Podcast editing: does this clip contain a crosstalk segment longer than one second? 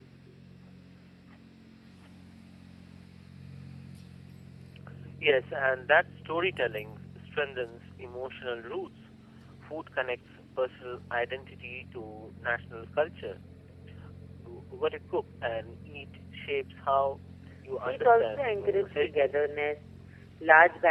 Yes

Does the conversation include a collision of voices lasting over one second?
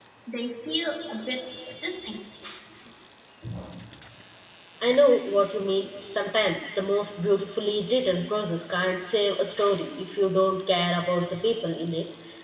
No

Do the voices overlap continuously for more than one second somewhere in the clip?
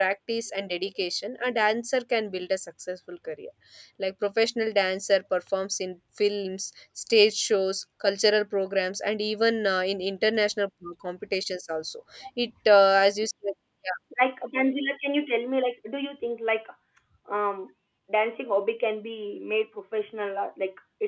No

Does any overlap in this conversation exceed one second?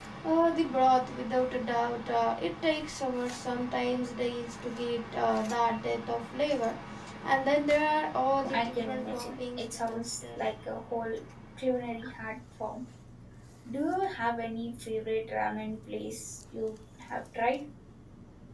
Yes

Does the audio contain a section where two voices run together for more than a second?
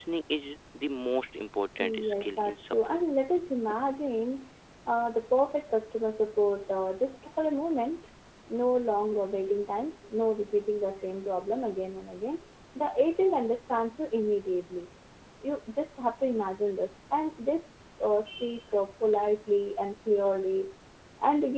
Yes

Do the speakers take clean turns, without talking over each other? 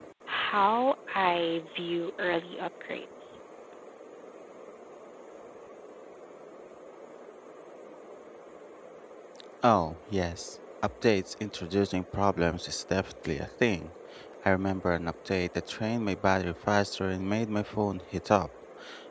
Yes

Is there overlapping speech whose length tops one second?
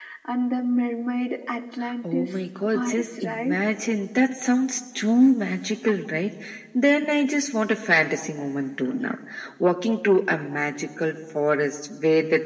Yes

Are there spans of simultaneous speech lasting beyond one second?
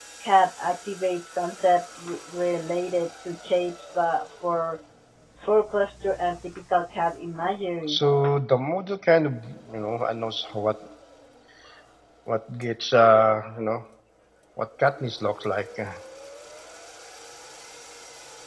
No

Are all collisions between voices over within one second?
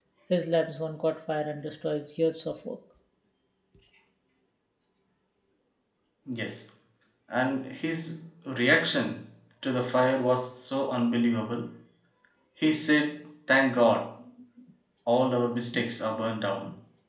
Yes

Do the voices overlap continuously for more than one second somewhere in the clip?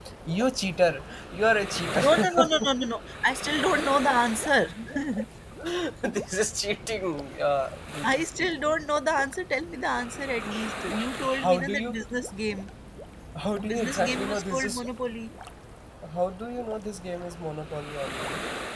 Yes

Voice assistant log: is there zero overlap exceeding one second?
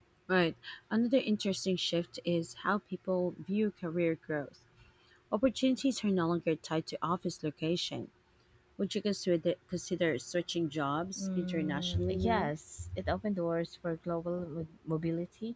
No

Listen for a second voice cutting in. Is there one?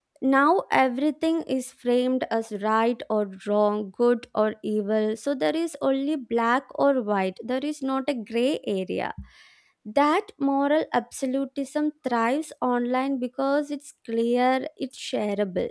No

